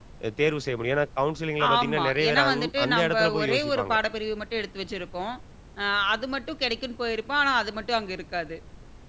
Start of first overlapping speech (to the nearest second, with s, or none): 2 s